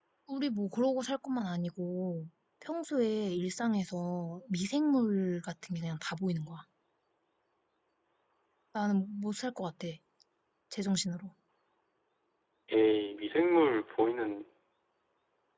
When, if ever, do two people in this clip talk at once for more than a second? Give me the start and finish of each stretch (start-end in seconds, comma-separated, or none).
none